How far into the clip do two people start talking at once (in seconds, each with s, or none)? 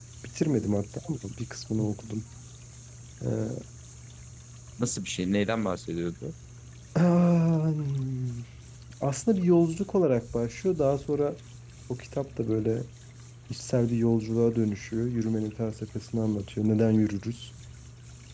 none